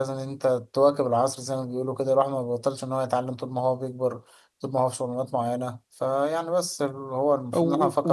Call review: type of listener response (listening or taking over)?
taking over